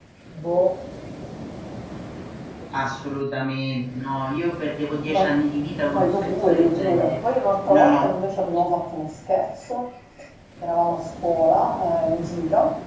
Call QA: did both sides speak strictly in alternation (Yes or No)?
No